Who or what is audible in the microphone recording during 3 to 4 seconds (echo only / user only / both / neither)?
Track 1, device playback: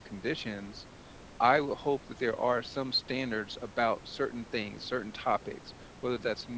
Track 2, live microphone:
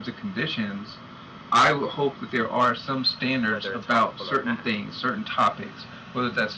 both